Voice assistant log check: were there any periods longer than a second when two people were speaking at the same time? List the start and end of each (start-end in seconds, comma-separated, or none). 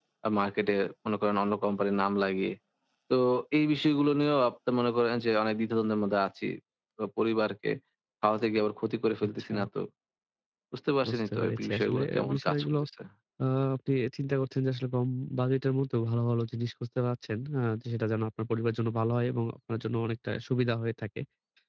11.1-12.8